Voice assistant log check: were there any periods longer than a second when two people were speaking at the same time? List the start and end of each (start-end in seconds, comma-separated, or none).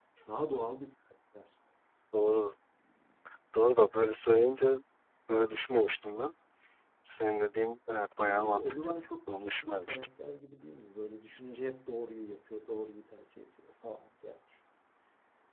8.2-10.1